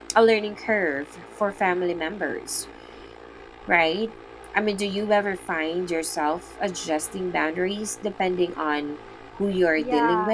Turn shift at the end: Yes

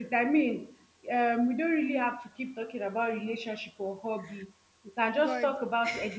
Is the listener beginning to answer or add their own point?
No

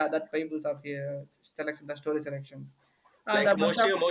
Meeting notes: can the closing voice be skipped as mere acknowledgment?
No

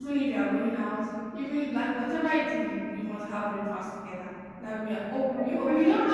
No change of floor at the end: Yes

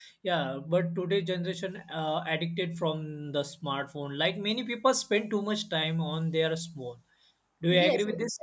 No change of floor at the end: No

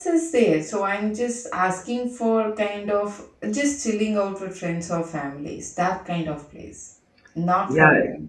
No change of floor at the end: No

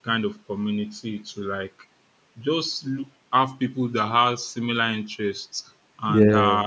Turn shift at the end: No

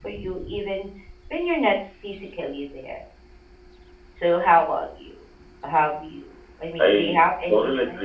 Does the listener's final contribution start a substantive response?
Yes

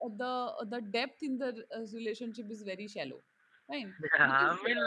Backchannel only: No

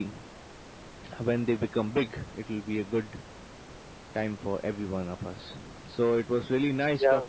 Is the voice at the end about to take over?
No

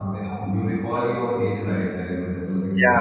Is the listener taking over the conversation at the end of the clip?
Yes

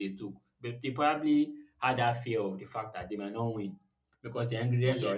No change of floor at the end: Yes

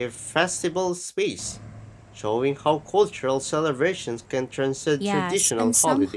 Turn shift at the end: Yes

